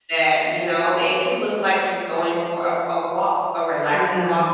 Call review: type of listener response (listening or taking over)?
listening